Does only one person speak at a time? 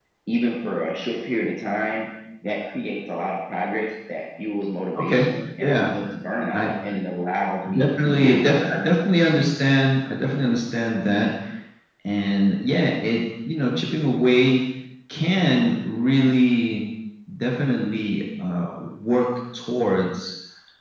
No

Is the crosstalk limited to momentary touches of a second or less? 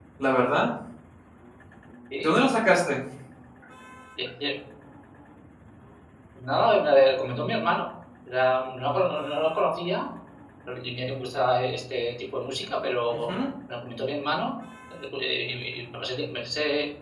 Yes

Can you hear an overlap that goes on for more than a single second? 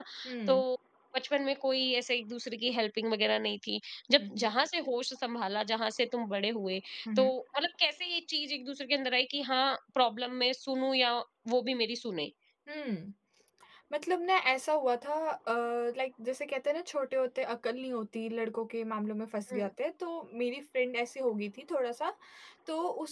No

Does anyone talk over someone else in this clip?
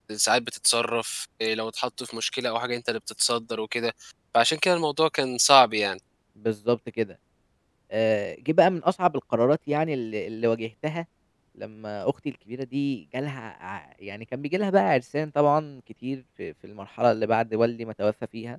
No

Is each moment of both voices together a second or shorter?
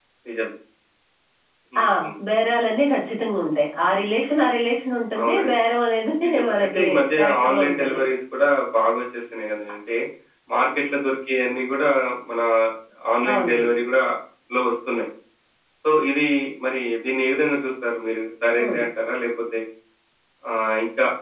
No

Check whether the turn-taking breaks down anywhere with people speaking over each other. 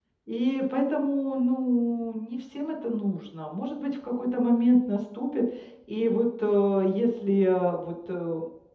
No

